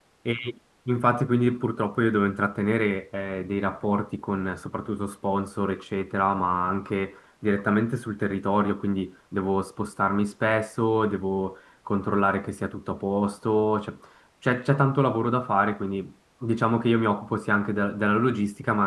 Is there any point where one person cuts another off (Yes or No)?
No